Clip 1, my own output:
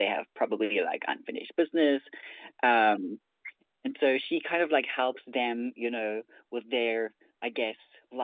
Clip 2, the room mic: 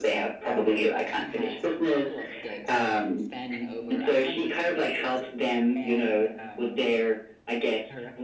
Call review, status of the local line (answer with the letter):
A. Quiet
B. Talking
B